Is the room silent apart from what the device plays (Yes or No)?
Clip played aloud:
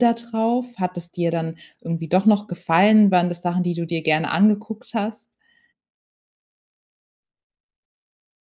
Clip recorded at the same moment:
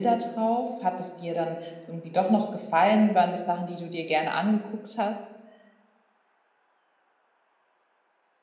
Yes